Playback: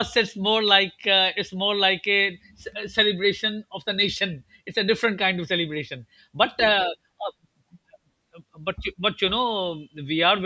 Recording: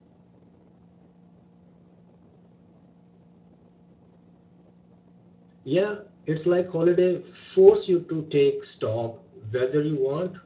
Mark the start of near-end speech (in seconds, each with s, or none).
5.6 s